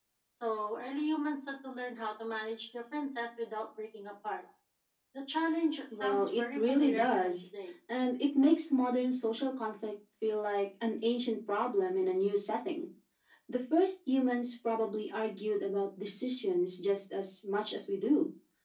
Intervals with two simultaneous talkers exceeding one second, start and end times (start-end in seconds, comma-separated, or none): 5.9-7.5